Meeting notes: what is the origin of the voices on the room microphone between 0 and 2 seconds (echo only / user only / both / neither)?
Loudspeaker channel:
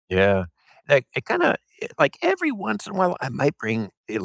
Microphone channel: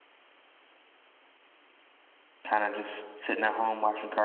neither